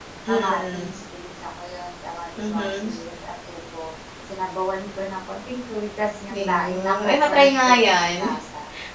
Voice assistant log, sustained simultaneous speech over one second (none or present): present